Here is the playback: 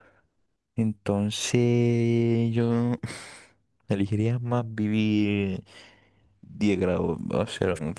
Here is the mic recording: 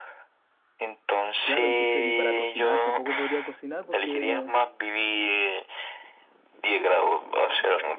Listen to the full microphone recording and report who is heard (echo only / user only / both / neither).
both